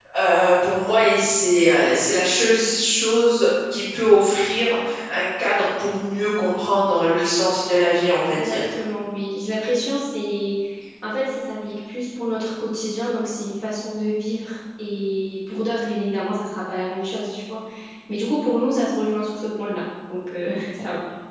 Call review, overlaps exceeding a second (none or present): none